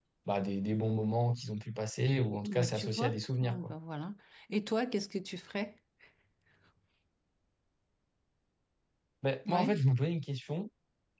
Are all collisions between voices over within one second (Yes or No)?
No